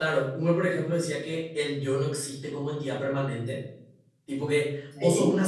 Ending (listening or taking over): listening